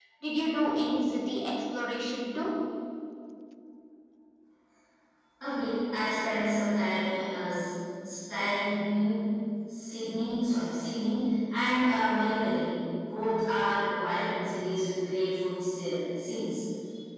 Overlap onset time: none

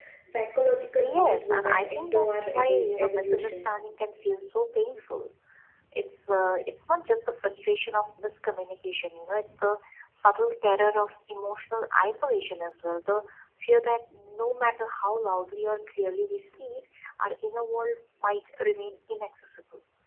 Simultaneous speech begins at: 1.0 s

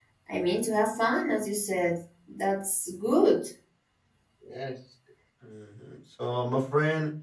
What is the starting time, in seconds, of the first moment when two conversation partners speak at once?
none

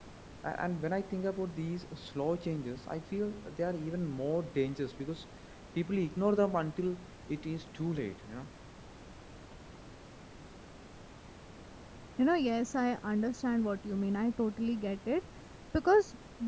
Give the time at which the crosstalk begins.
none

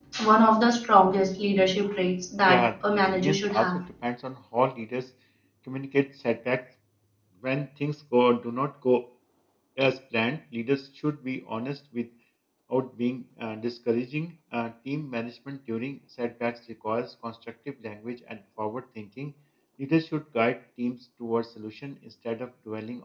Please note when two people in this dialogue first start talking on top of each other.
2.4 s

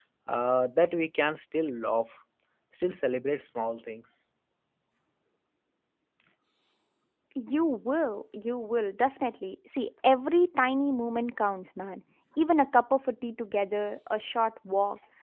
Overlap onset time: none

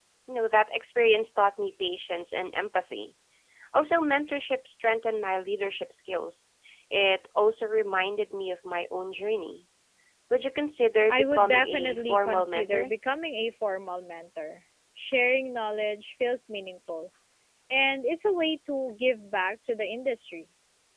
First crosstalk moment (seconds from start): 11.1 s

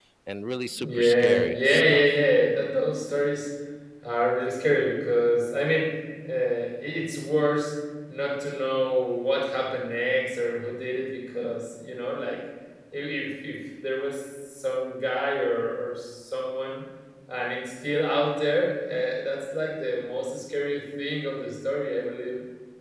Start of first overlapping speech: 0.7 s

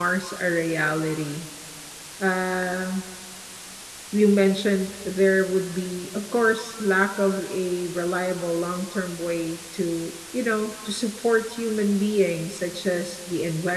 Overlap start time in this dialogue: none

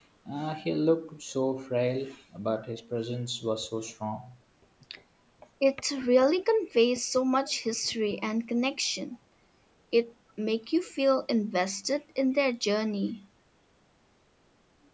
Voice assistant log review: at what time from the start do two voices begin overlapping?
none

